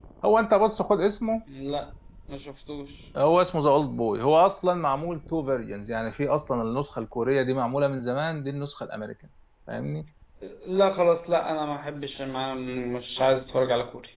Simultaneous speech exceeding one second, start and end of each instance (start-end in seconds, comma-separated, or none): none